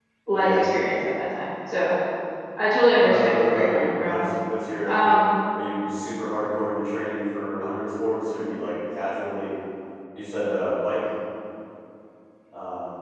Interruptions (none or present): present